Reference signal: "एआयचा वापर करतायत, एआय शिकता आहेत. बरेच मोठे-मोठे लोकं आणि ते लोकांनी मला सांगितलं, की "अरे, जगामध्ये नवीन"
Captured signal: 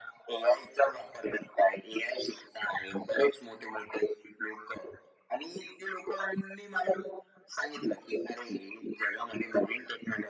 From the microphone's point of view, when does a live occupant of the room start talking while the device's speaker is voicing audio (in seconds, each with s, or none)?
none